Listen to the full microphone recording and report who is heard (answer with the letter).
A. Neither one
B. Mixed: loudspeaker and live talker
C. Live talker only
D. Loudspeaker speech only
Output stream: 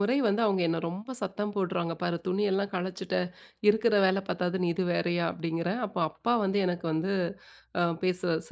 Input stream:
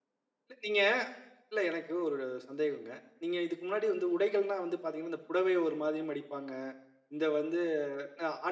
C